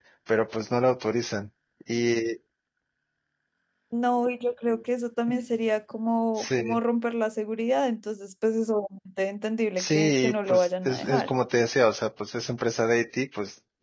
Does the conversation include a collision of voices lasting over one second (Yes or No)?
Yes